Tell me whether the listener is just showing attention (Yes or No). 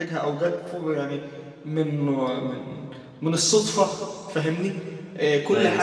Yes